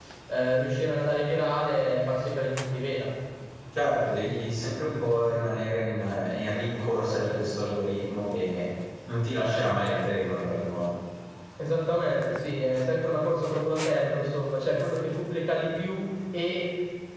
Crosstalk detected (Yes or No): No